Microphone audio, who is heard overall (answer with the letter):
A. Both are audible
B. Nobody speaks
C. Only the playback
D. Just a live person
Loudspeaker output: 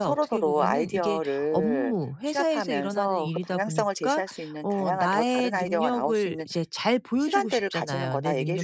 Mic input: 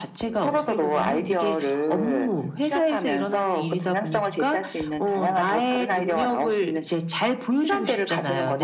C